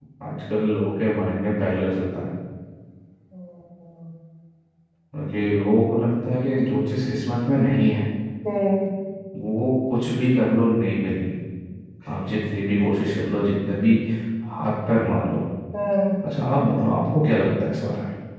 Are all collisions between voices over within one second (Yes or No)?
Yes